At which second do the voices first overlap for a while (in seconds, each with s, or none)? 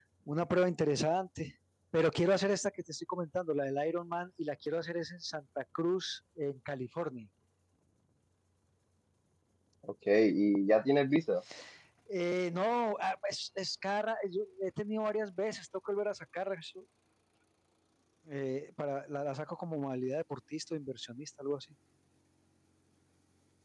none